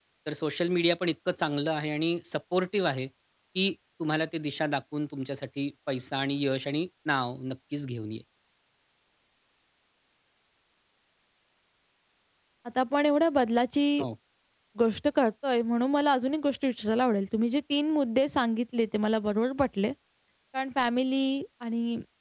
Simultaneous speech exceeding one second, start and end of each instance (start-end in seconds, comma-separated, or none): none